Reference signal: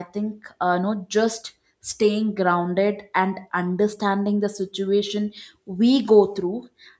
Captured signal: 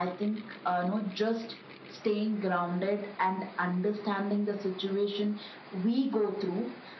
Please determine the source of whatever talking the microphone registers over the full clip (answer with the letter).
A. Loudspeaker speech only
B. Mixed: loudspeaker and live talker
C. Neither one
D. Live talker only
A